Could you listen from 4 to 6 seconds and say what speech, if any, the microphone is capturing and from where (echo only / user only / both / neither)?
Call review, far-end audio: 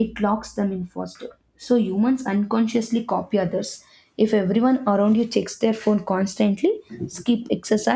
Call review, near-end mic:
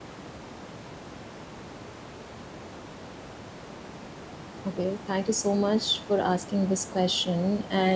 user only